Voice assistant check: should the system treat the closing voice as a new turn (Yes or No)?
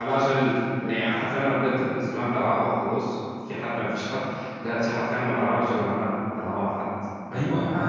Yes